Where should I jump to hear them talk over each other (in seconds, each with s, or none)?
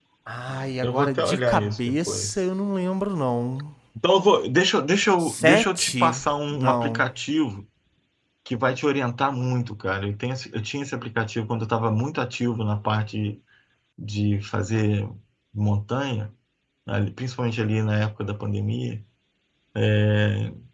0.8 s